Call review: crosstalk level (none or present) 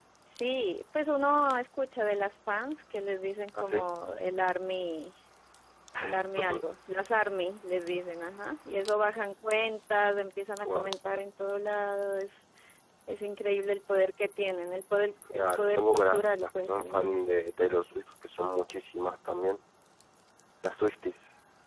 present